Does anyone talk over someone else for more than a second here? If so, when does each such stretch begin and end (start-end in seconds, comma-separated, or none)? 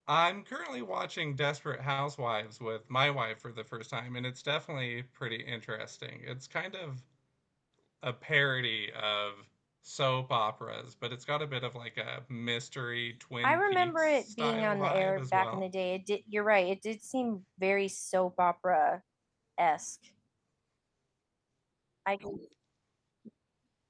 13.4-15.6